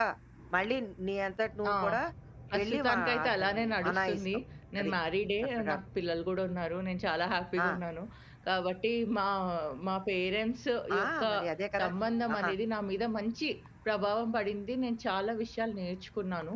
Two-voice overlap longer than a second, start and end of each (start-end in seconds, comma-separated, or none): 2.6-4.2